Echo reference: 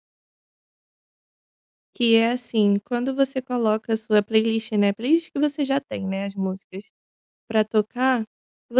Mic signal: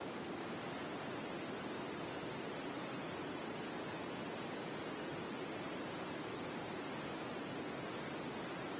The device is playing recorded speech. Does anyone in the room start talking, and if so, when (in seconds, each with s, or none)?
none